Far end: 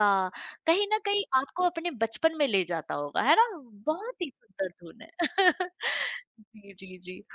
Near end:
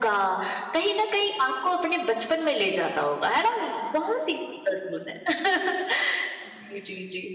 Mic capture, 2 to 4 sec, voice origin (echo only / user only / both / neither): echo only